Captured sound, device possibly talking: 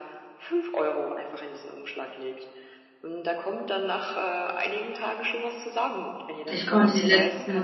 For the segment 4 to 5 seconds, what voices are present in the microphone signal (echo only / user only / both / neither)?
echo only